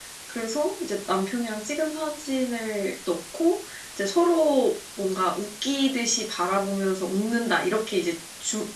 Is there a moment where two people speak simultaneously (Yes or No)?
No